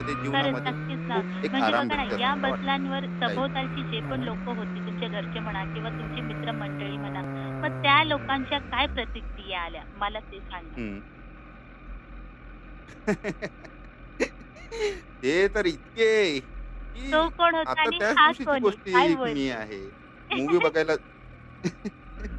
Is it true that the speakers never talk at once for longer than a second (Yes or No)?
No